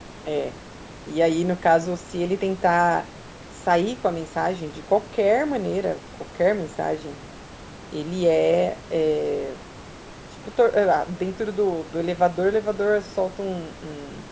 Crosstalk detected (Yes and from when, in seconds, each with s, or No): No